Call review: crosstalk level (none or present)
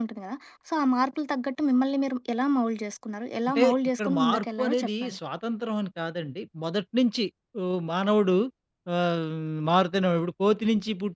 present